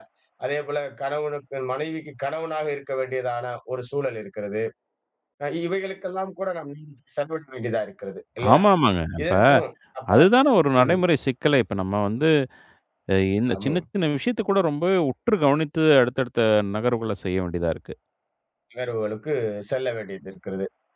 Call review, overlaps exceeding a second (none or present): none